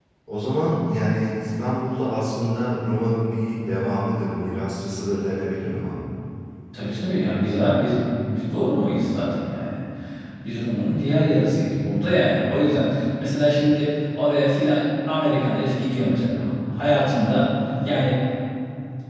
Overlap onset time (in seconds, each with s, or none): none